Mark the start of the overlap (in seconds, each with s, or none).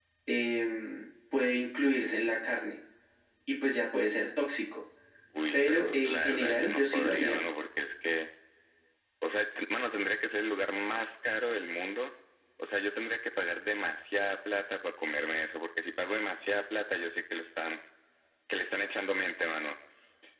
5.5 s